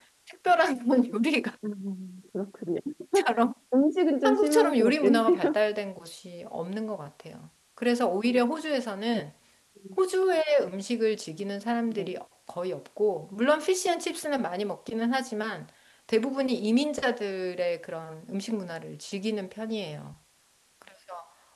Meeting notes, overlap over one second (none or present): present